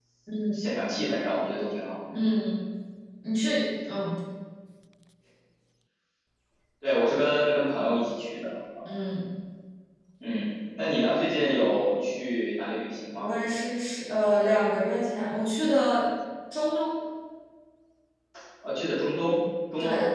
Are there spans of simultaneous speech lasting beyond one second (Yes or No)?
No